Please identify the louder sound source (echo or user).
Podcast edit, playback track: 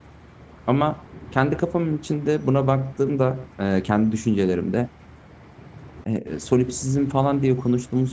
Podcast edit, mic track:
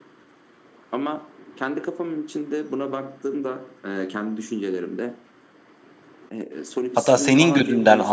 user